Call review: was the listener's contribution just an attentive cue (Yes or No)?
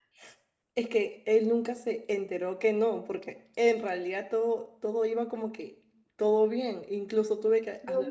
Yes